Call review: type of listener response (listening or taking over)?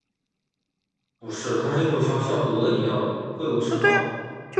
taking over